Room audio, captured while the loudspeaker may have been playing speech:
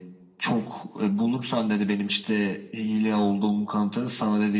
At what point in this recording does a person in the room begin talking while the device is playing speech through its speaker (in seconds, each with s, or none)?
none